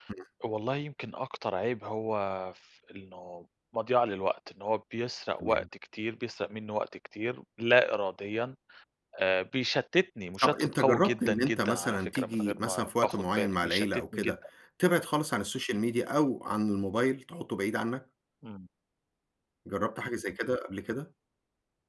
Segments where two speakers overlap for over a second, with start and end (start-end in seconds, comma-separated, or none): 10.4-14.3